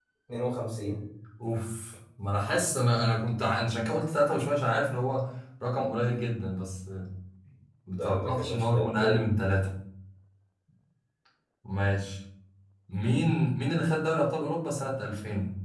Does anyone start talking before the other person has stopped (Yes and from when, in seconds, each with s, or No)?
Yes, from 7.9 s